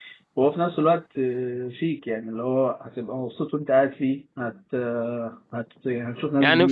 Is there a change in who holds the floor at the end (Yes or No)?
Yes